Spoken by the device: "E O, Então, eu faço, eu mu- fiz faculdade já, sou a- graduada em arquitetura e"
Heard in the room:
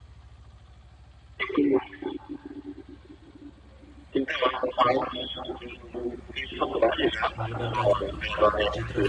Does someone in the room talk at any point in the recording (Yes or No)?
Yes